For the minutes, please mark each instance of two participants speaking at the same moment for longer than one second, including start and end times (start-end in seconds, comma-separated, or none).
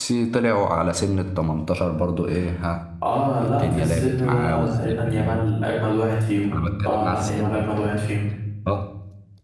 3.4-5.4, 6.5-7.7